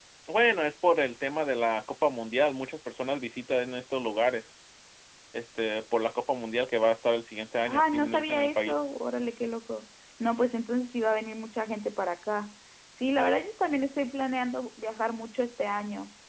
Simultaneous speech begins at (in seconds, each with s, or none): 7.6 s